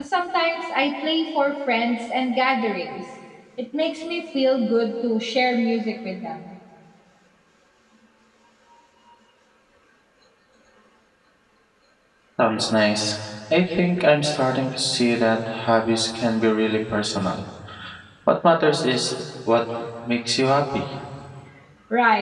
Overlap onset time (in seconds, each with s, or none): none